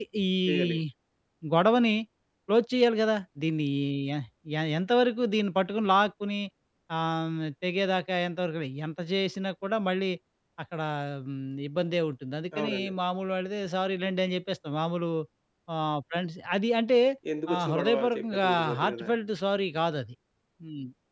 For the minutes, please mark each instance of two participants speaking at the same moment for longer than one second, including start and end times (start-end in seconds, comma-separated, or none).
17.5-19.1